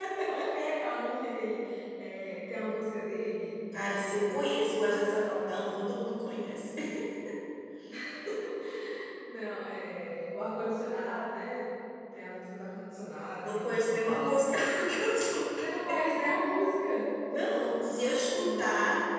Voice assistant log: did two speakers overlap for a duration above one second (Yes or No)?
Yes